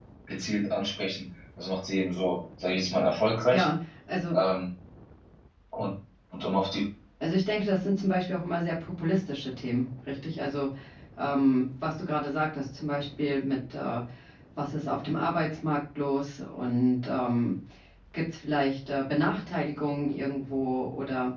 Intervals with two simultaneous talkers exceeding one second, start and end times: none

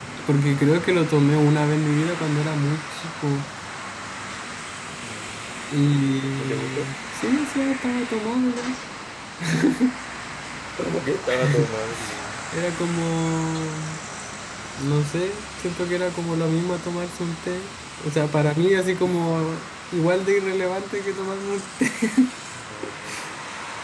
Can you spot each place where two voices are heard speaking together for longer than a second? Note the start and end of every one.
none

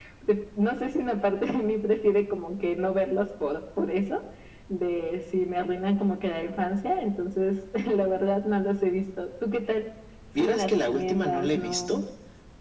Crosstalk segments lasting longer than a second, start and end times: 10.4-12.0

